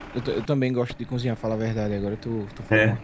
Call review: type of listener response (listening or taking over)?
listening